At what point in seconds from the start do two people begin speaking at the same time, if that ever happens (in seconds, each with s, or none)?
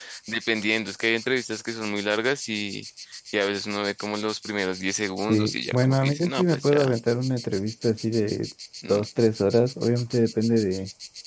5.3 s